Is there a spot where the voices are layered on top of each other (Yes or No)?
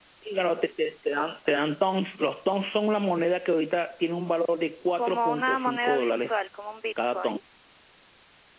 Yes